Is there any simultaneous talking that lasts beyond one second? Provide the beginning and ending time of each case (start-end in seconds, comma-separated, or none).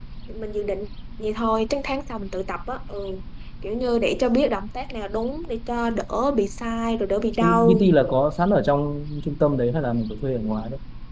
none